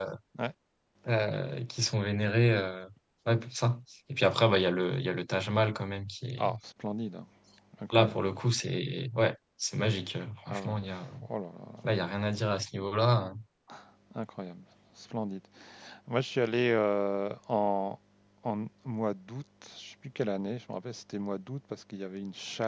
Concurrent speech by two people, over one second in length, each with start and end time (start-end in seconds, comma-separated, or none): none